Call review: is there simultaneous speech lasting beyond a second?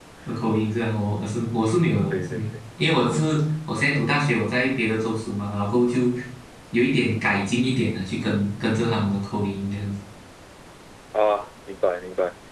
No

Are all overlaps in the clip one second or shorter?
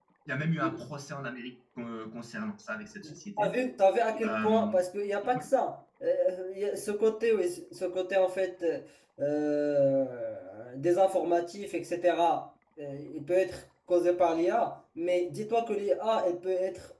Yes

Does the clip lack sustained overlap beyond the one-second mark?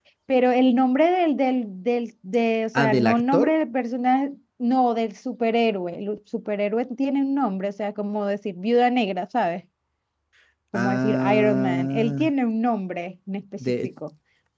No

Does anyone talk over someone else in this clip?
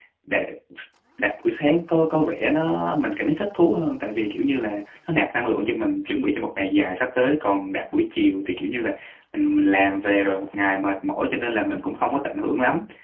No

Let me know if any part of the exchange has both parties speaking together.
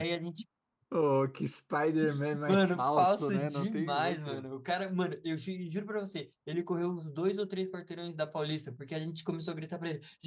Yes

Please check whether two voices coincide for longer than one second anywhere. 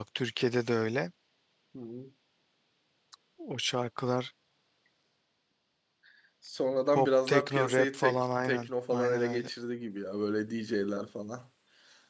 Yes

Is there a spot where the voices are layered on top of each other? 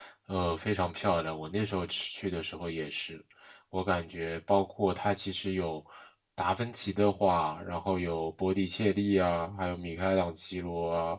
No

